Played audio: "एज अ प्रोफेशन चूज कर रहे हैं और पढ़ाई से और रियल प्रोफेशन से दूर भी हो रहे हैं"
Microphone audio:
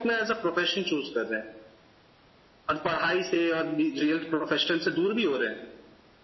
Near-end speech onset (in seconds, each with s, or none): none